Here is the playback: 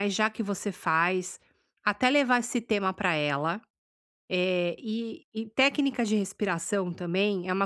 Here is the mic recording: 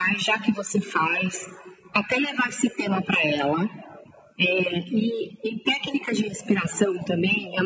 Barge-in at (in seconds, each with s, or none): none